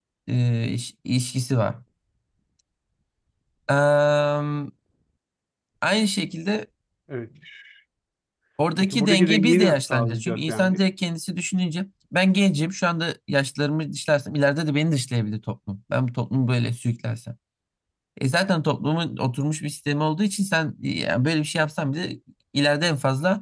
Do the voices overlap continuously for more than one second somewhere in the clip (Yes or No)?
Yes